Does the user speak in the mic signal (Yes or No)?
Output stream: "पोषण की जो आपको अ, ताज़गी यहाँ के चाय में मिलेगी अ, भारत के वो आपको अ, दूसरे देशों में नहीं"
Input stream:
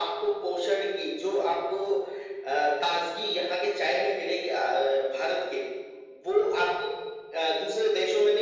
No